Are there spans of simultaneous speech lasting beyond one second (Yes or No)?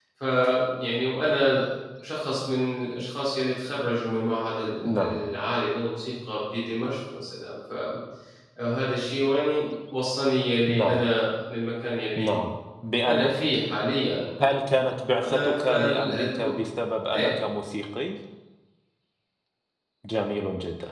Yes